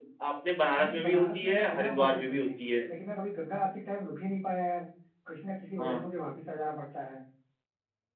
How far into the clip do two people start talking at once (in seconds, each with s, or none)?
0.8 s